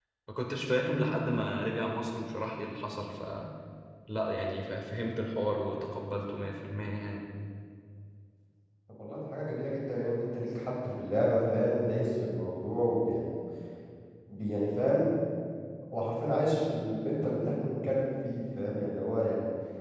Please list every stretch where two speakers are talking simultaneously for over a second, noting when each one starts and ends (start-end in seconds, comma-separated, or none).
none